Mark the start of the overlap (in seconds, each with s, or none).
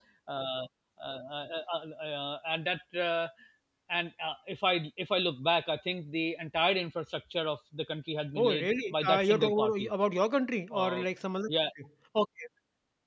8.4 s